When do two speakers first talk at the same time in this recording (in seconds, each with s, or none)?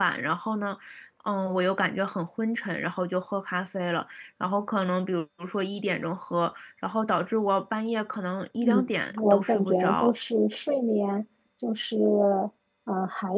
8.6 s